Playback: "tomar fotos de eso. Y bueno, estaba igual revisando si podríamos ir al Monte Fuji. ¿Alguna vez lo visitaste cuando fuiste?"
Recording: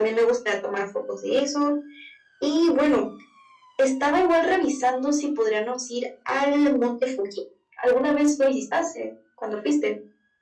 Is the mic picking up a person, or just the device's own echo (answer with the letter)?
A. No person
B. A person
A